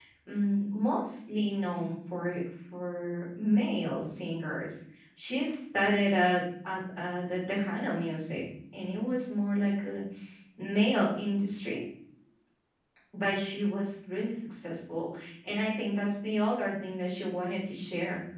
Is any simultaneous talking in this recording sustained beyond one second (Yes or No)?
No